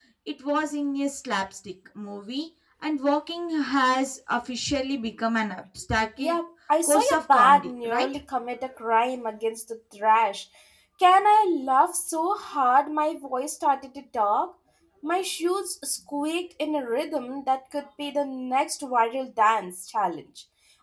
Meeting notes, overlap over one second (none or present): present